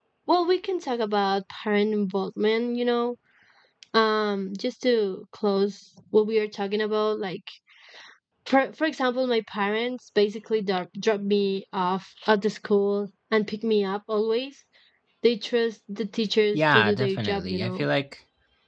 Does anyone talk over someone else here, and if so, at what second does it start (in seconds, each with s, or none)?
16.5 s